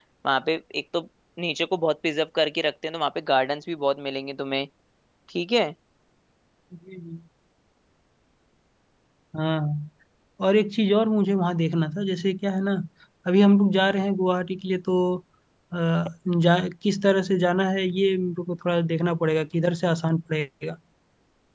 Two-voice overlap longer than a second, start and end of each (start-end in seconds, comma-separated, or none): none